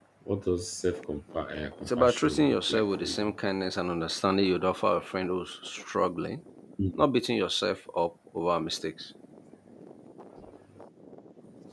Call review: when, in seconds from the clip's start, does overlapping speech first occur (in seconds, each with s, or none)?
1.8 s